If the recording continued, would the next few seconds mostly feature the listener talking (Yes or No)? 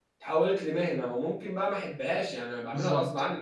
Yes